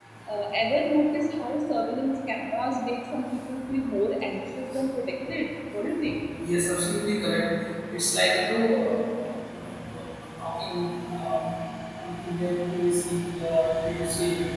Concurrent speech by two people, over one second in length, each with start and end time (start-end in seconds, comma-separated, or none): none